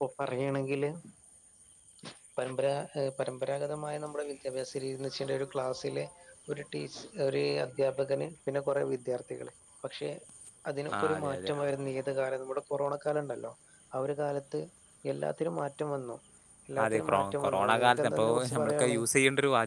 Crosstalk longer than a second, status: present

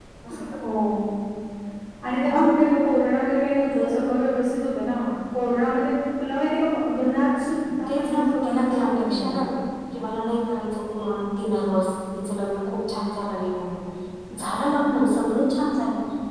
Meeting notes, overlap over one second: present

